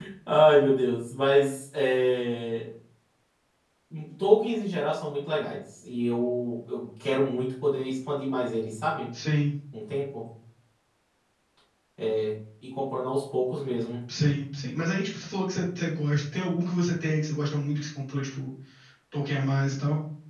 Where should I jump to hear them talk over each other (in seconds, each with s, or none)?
none